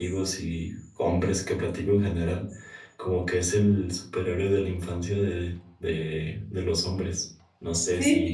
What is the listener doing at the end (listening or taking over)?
taking over